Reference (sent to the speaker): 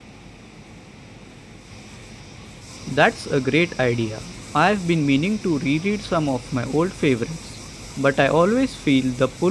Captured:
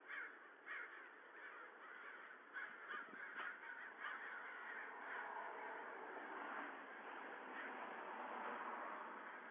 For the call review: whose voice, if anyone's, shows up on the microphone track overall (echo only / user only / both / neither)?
neither